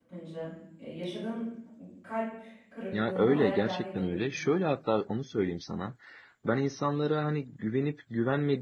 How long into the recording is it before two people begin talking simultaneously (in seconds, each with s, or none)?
2.9 s